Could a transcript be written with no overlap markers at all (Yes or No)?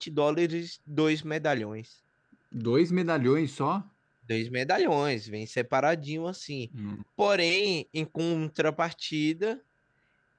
Yes